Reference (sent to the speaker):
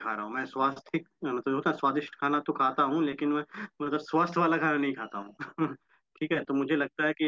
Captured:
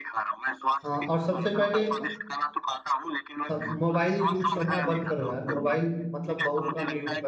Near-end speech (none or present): present